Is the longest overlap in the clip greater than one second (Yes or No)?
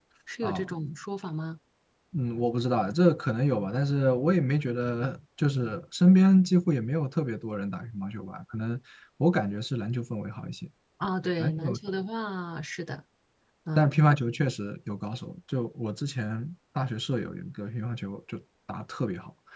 No